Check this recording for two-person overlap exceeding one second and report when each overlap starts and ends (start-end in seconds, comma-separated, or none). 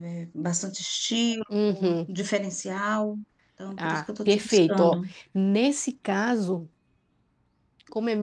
3.8-5.0